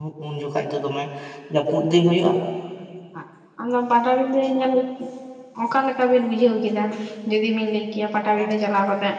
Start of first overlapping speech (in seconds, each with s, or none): none